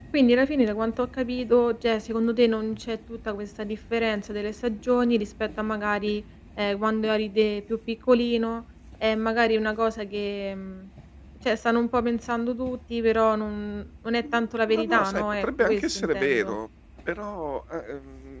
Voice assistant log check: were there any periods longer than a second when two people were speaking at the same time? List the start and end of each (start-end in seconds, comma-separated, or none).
14.2-16.6